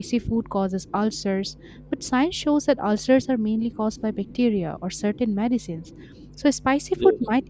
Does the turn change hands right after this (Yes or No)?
No